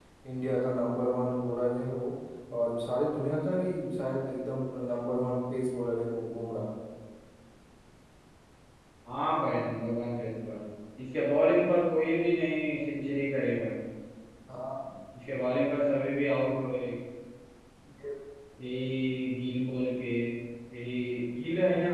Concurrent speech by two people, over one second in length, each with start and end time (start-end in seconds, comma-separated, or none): none